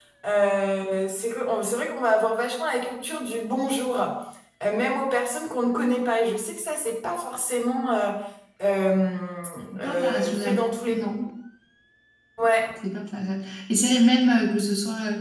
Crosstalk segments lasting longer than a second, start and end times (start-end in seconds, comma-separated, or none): 9.8-11.0